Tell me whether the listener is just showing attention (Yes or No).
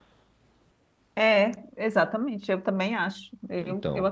Yes